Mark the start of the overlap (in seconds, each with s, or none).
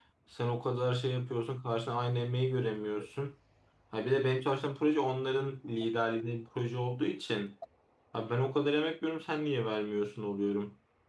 none